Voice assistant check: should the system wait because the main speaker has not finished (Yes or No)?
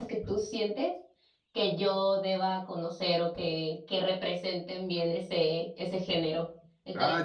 No